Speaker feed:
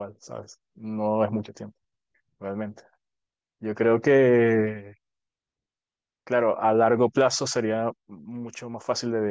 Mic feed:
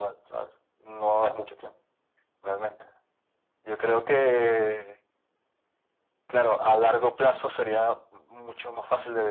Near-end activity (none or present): none